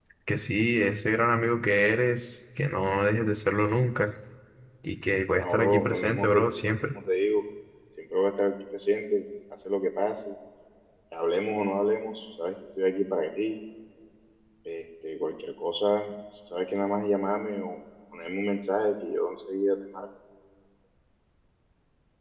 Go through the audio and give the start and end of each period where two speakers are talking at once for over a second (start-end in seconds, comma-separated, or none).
5.4-7.0